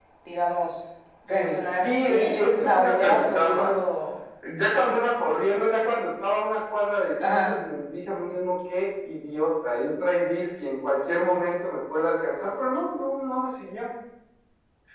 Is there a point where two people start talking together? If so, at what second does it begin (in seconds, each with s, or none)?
1.3 s